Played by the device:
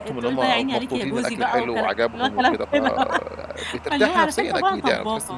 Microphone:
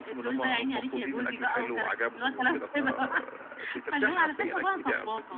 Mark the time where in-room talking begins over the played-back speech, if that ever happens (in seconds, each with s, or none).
none